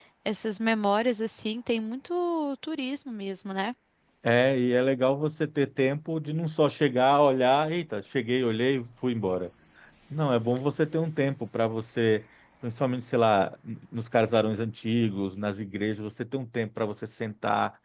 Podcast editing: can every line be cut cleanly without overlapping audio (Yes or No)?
Yes